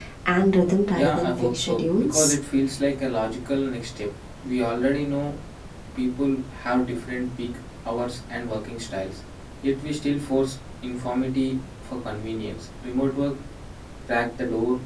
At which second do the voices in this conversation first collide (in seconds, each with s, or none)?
0.9 s